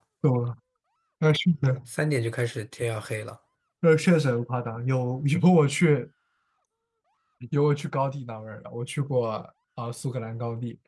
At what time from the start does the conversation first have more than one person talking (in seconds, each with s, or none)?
none